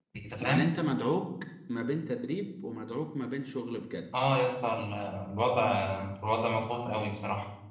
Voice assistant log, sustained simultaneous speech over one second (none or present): none